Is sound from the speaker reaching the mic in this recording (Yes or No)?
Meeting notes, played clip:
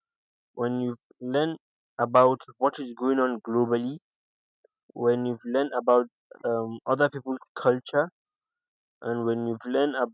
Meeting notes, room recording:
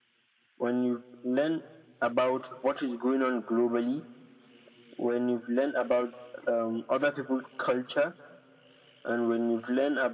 Yes